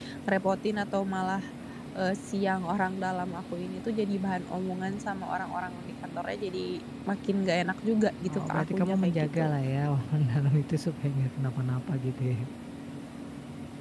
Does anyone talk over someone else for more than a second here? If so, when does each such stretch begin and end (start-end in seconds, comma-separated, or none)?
8.3-9.5